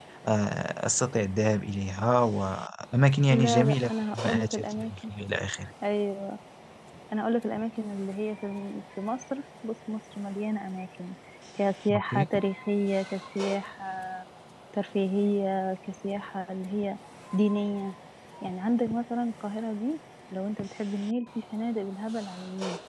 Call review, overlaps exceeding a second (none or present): present